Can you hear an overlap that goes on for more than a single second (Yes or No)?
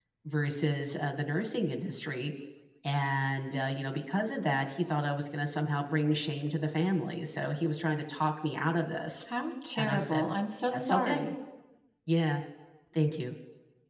No